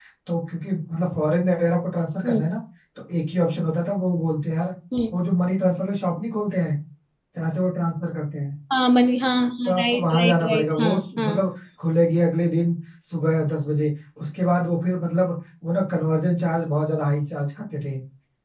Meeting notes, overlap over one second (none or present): present